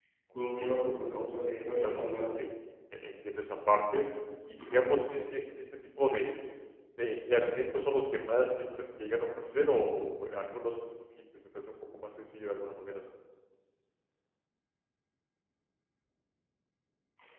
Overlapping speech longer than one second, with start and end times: 0.6-2.3

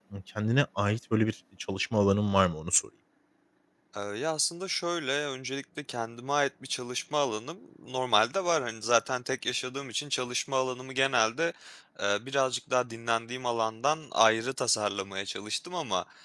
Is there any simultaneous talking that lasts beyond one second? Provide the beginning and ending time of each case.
none

